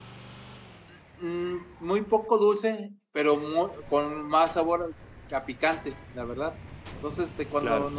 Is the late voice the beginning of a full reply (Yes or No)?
No